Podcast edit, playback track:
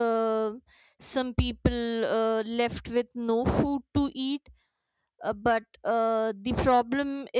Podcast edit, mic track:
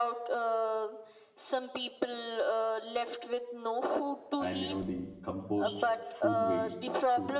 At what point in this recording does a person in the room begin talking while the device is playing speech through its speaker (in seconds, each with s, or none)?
4.4 s